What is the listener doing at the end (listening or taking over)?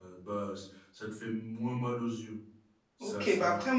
taking over